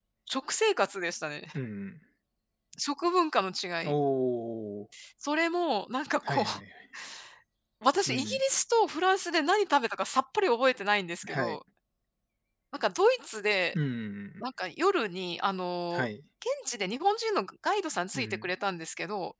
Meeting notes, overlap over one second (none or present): none